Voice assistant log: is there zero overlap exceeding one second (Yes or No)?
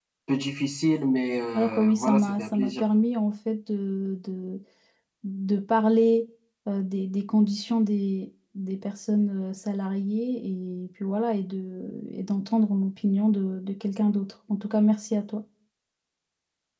No